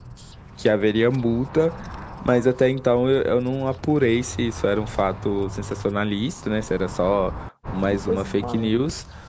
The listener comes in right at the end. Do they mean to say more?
No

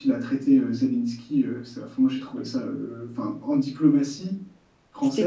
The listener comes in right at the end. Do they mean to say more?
No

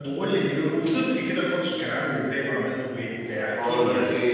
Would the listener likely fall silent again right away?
No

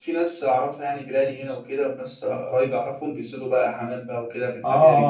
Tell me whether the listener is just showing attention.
No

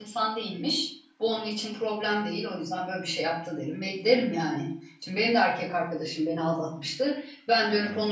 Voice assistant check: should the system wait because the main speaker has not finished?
Yes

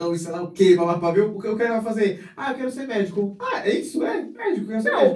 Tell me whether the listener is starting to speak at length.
Yes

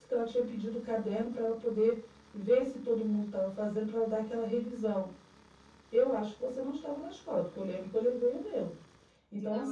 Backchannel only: Yes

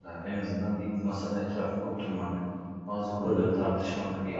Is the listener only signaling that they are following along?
Yes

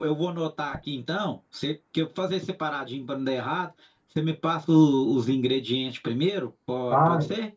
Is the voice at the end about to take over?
Yes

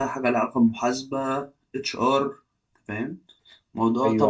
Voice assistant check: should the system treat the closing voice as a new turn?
Yes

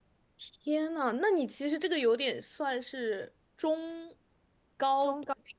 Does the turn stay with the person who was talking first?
No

